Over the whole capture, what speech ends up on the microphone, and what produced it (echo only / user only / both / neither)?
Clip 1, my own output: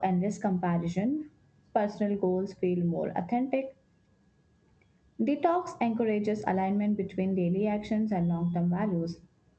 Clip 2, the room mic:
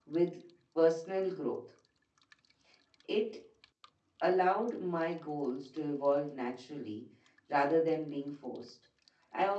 user only